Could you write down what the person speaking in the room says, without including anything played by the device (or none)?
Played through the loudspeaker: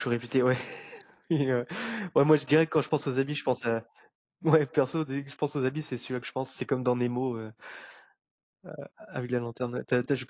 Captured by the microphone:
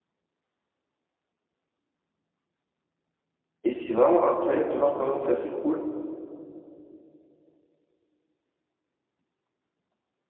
et c'est vraiment incroyable de voir comment ça s'écroule,